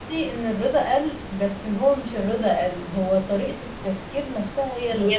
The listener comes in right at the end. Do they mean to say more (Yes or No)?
Yes